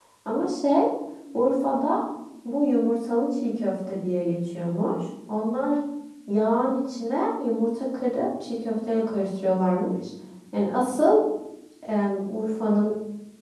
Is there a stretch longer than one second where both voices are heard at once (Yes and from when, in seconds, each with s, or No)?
No